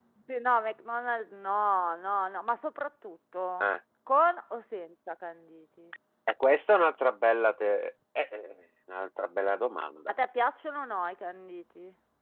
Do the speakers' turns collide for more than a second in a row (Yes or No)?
No